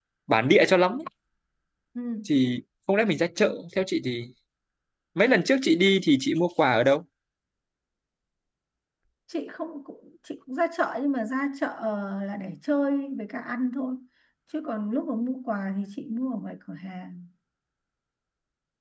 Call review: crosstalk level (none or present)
none